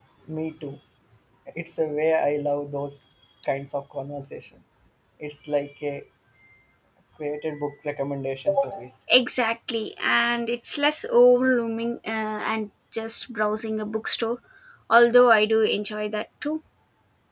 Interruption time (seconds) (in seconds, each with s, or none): none